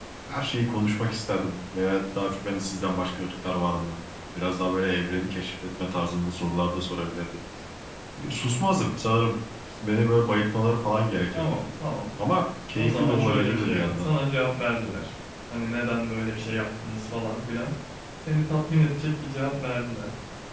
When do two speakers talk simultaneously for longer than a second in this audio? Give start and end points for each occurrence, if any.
12.8-14.1

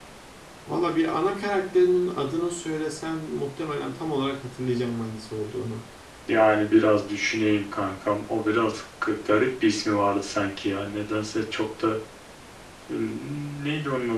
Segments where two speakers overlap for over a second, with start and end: none

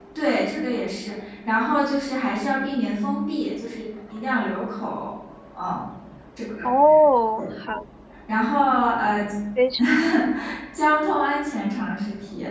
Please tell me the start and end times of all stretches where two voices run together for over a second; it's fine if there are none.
none

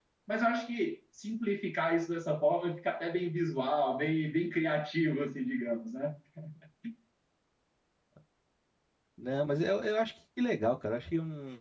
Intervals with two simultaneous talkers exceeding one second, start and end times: none

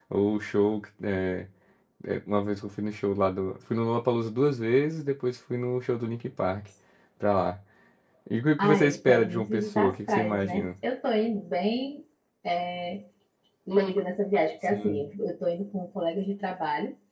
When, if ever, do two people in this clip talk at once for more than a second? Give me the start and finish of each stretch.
8.6-10.7

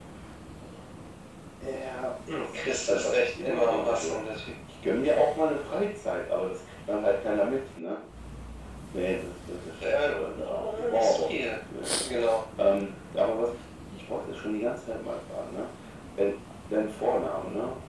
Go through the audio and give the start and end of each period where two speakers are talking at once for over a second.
2.5-4.2, 9.8-11.6

